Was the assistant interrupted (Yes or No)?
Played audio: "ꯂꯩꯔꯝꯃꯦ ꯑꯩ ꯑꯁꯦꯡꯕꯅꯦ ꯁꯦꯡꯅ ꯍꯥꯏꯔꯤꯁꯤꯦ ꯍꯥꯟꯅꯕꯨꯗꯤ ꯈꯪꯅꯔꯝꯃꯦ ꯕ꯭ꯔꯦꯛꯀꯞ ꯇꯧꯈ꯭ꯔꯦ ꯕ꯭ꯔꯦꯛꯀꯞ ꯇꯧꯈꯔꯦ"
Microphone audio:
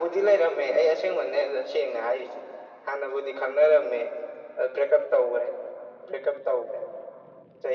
No